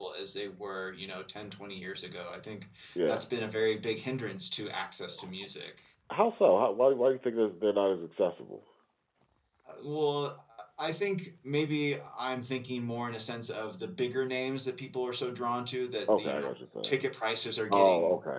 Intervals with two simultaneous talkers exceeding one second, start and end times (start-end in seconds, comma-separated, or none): none